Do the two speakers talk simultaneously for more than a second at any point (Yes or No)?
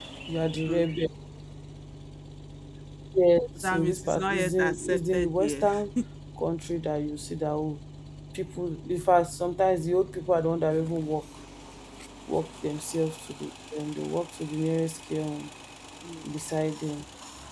Yes